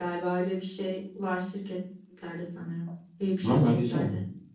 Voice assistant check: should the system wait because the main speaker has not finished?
No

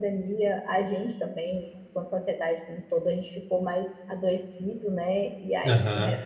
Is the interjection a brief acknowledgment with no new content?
Yes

